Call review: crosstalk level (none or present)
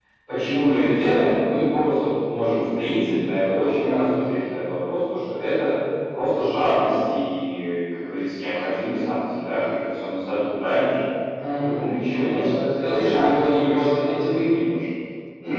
present